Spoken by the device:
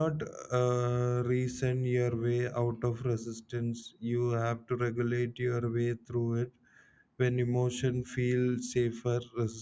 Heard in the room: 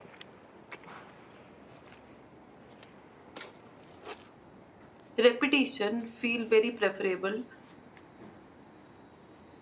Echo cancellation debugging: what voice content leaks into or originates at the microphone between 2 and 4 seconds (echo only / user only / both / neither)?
neither